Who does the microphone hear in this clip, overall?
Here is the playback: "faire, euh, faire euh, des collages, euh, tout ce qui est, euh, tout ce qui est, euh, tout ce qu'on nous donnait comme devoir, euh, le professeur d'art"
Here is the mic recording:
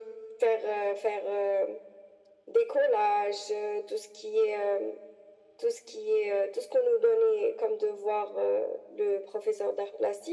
echo only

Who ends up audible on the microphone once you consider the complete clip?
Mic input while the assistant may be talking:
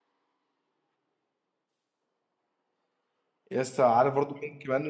user only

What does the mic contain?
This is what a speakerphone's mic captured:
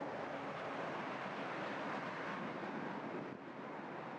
neither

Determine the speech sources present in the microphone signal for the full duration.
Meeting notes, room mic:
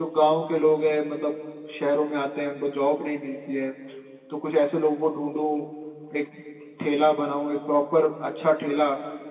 echo only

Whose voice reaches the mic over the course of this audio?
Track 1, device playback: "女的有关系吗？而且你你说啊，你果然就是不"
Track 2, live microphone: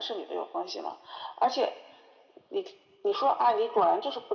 echo only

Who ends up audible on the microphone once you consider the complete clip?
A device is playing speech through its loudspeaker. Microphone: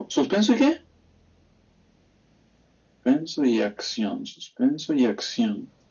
echo only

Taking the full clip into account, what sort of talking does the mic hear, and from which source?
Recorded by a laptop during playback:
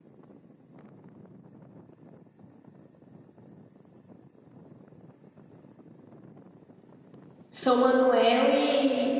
user only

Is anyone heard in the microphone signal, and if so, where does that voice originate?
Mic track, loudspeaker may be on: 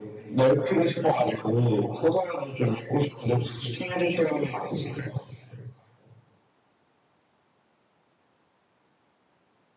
echo only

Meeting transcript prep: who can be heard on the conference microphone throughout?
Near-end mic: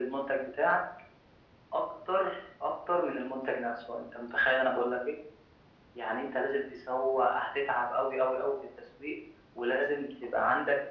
echo only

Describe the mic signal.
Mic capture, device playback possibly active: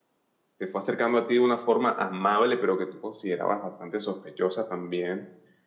user only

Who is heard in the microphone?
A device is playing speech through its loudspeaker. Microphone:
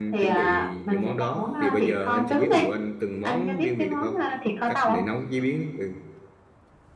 both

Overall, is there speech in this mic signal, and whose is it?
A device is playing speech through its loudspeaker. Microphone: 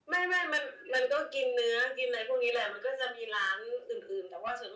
echo only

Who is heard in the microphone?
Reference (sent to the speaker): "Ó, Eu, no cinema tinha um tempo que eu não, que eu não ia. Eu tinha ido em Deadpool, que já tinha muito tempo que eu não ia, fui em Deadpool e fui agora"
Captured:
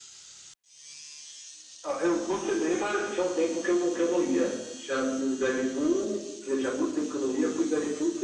echo only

